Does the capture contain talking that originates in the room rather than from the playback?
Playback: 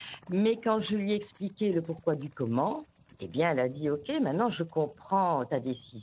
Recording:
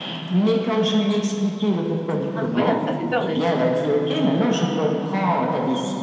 Yes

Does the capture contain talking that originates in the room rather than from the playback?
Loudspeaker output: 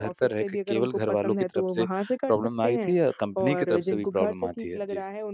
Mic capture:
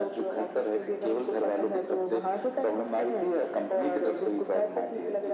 No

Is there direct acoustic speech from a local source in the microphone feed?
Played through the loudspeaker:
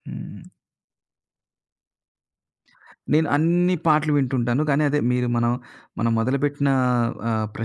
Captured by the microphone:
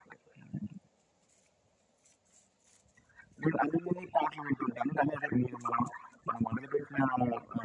No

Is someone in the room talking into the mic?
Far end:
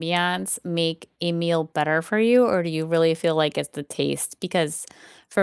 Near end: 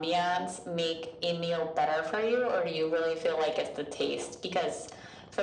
No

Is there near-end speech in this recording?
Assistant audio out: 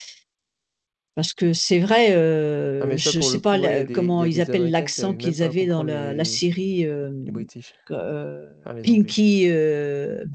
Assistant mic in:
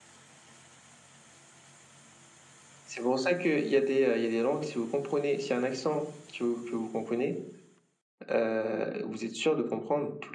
Yes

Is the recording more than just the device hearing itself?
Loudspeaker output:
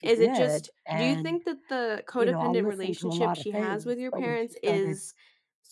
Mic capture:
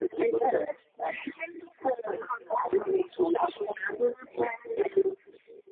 No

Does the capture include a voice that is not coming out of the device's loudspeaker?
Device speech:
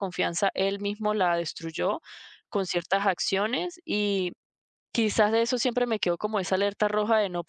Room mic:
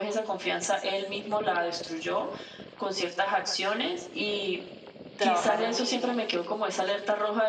Yes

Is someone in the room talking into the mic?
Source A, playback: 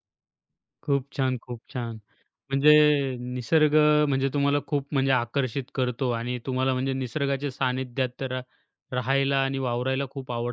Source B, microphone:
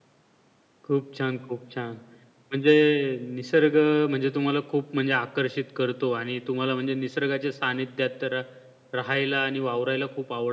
No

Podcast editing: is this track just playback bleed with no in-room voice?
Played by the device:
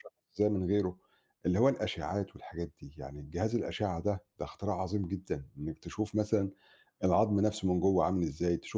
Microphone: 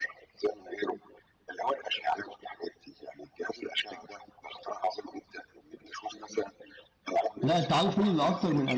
No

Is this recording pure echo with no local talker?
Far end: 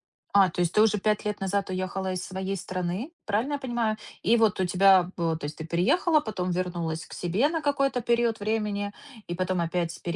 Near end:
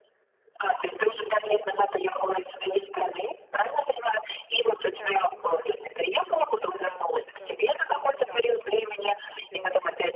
No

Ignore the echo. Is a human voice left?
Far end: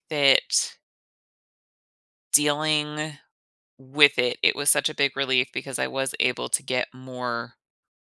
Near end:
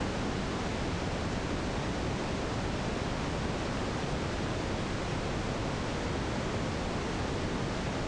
No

